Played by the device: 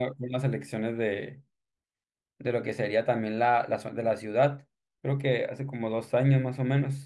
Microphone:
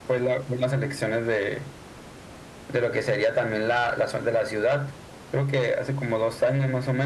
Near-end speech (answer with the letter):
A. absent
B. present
A